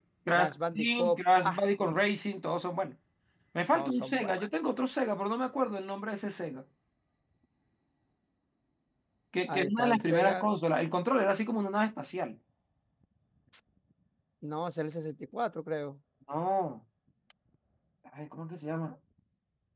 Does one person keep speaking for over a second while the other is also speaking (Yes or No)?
Yes